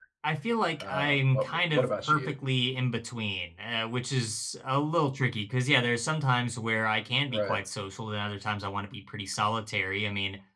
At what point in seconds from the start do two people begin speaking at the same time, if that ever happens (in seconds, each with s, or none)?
0.8 s